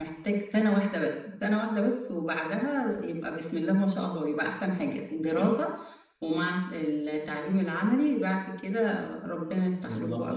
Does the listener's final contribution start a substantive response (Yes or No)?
Yes